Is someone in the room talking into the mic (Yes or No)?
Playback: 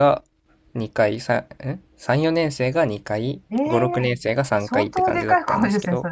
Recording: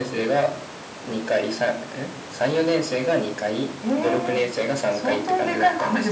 No